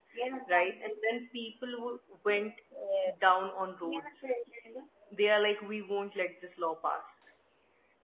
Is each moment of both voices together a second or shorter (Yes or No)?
Yes